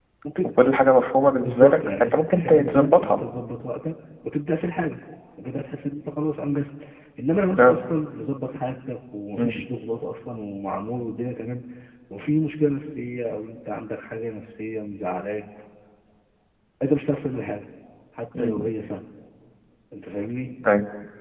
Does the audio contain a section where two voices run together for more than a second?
Yes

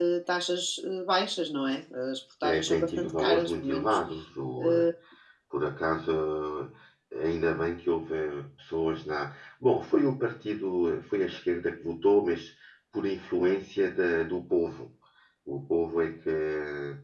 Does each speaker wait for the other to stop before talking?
No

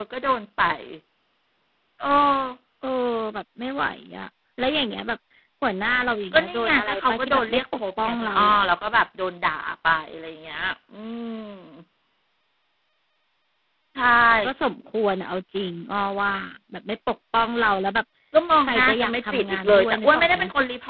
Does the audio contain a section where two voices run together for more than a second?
Yes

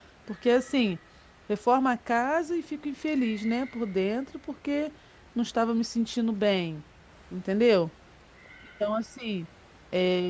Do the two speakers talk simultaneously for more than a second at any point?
No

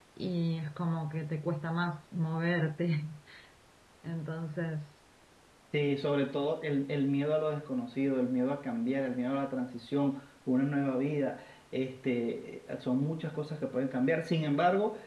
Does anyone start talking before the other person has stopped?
No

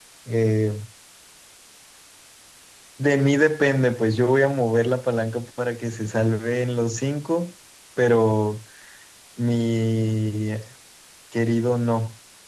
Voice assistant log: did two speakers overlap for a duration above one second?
No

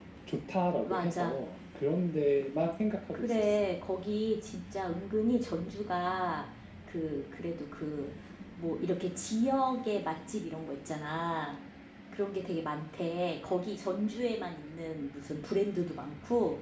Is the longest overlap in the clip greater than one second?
No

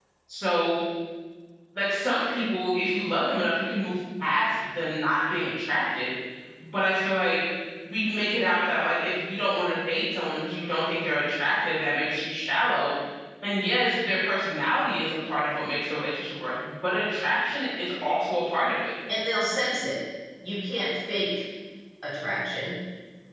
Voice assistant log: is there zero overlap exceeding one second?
Yes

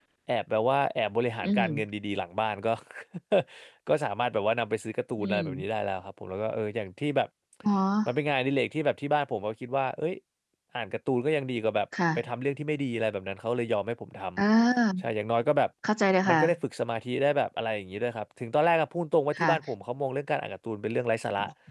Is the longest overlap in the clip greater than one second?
No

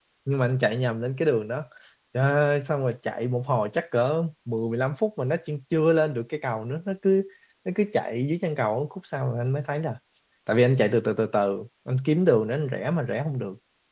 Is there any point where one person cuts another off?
No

